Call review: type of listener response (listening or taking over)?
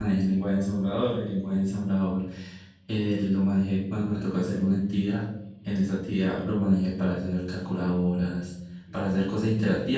listening